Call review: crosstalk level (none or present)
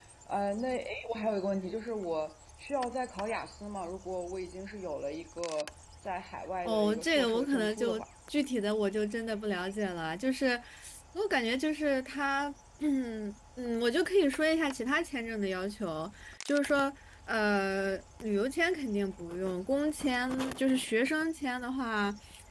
present